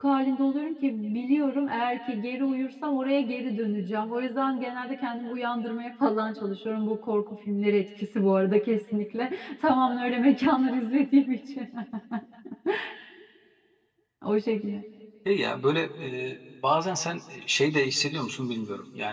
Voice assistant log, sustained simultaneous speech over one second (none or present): none